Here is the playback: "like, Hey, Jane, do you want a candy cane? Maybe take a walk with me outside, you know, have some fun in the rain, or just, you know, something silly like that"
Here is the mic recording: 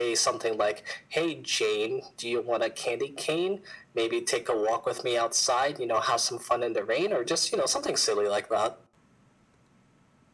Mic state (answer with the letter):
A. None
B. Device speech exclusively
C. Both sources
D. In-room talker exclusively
B